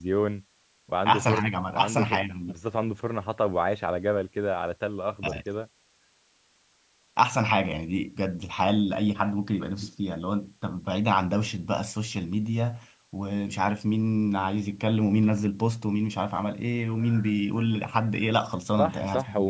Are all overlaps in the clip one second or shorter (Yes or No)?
No